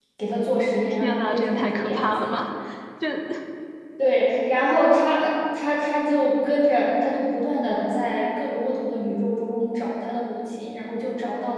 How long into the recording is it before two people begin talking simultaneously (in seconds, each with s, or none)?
0.9 s